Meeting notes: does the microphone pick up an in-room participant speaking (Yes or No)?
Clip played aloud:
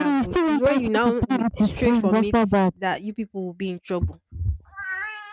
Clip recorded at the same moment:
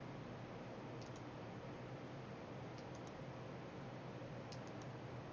No